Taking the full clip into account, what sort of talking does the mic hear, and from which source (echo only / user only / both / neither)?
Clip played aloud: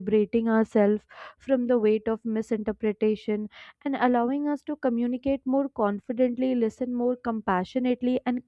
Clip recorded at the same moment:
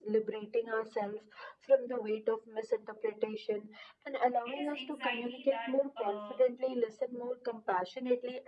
both